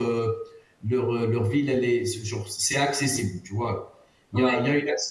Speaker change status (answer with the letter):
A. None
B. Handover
A